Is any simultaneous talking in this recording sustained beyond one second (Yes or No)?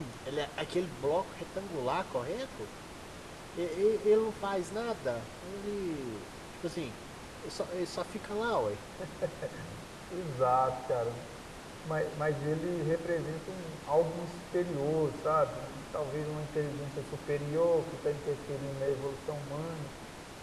No